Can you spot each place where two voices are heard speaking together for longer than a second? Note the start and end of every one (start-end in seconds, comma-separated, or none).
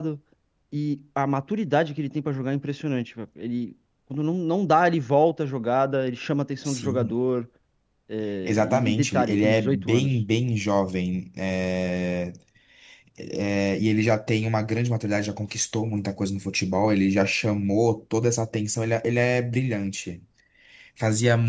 8.4-10.1